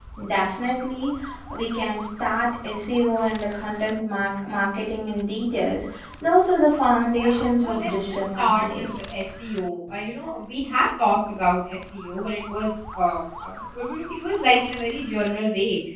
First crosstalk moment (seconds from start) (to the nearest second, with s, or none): 7 s